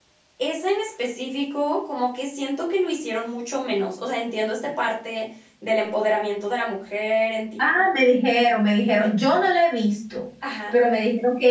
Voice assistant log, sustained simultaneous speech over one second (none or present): none